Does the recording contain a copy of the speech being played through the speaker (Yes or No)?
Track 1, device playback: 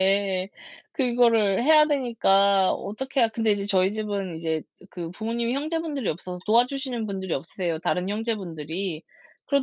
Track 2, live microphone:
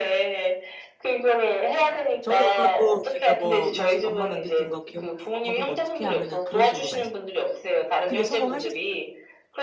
Yes